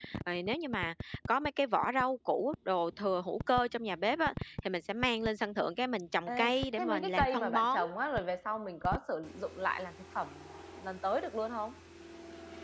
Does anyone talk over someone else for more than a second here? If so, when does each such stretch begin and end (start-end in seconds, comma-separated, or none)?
6.3-7.8